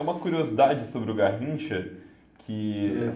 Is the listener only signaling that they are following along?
Yes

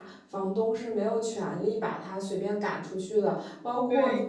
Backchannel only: Yes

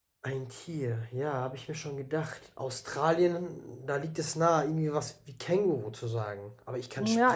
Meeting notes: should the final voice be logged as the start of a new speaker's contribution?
Yes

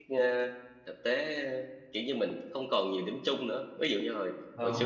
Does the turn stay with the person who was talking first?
Yes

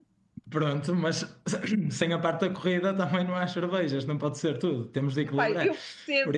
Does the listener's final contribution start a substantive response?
Yes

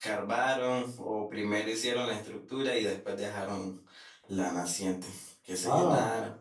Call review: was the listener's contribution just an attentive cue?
No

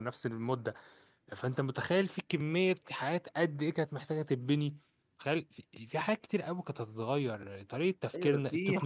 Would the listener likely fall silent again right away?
No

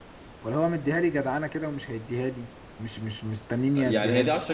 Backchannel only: No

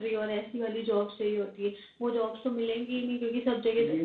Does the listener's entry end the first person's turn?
Yes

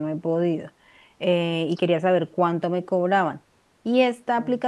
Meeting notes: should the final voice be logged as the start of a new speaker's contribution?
No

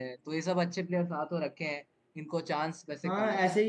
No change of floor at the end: No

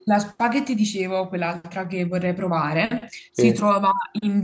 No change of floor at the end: Yes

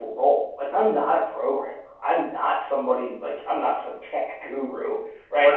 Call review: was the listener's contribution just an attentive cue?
No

